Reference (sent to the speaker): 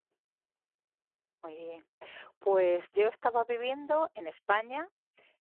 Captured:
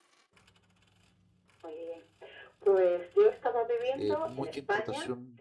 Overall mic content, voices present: both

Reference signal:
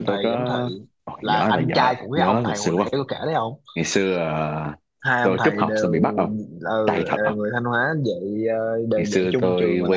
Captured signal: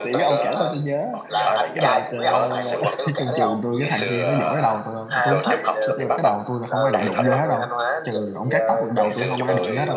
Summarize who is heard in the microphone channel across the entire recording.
both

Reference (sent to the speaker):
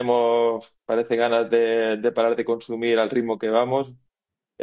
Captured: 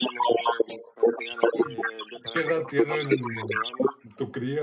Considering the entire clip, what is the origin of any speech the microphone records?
both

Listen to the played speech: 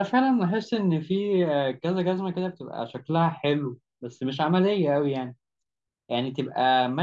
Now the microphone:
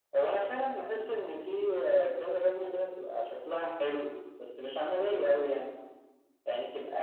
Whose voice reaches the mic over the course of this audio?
echo only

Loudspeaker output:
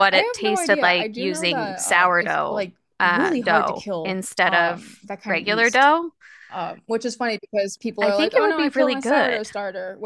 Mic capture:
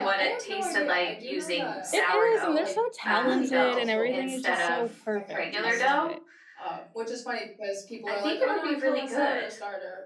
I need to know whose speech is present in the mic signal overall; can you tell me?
both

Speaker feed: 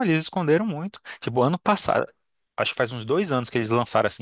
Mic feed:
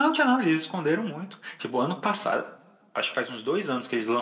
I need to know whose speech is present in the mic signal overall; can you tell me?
echo only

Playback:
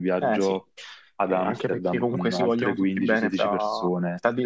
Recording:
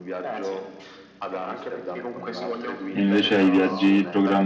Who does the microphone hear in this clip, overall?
both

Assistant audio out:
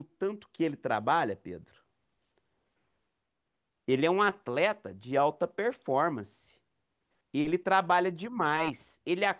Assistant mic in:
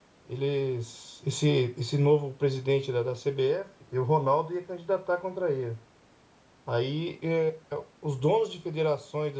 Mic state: user only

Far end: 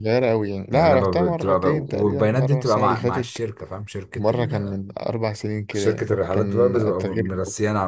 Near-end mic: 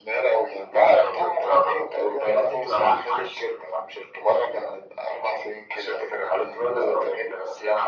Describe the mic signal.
echo only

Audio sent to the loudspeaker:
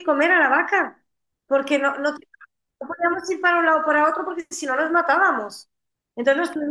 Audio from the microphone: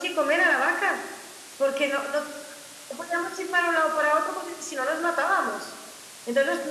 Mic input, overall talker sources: echo only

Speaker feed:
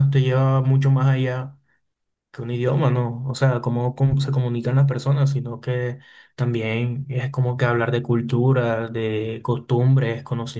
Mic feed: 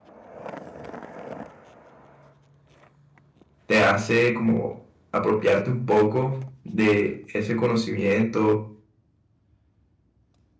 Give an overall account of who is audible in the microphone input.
user only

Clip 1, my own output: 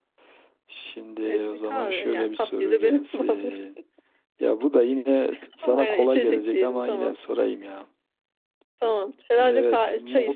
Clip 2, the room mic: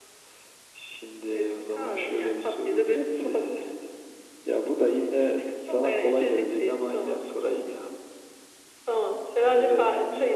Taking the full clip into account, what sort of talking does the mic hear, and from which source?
echo only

